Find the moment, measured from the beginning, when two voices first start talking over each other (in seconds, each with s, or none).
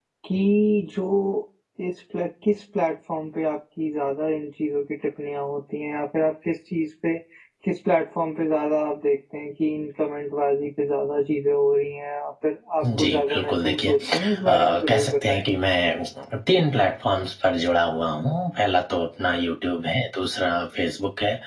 12.8 s